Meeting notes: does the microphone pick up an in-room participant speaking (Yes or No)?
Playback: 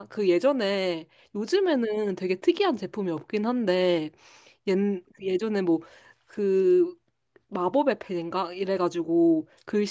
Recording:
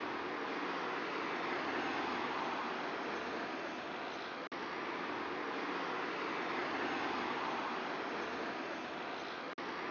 No